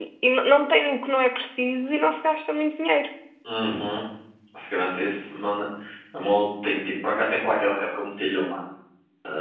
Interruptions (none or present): none